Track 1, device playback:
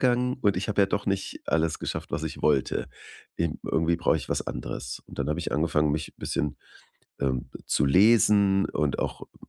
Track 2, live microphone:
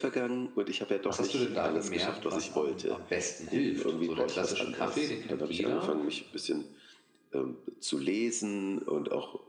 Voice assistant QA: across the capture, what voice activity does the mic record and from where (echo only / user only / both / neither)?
both